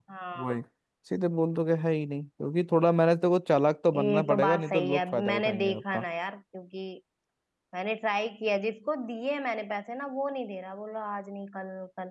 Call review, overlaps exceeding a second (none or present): present